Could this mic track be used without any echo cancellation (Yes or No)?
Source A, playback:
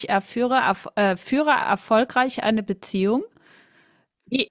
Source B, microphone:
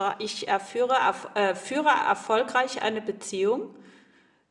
No